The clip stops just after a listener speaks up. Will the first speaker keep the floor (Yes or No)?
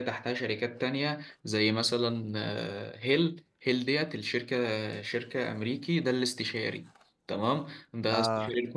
Yes